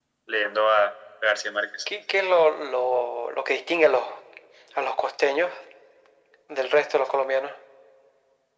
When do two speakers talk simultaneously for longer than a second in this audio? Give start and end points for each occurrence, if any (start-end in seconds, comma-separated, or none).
none